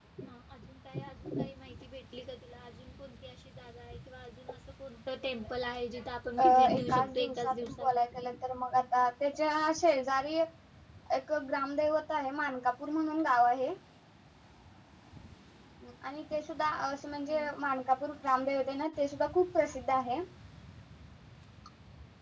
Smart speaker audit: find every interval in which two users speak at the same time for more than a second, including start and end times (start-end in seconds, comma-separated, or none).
6.4-7.9